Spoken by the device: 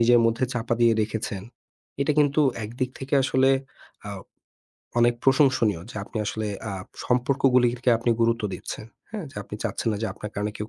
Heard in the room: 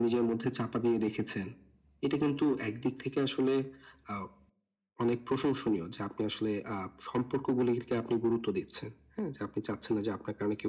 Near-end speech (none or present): none